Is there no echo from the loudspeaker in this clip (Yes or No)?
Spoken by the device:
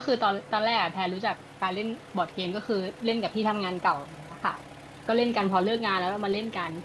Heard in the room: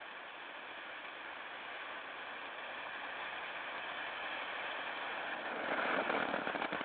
Yes